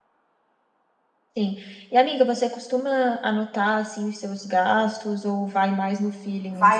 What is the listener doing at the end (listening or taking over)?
taking over